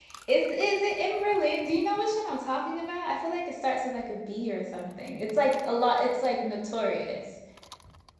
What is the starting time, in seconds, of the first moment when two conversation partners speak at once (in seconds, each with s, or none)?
none